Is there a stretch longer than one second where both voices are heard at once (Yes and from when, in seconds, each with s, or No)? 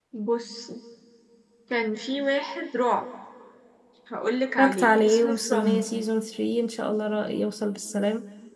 Yes, from 4.6 s